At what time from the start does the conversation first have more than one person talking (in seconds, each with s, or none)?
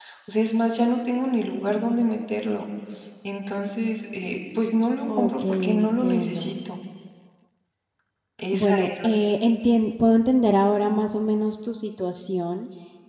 5.2 s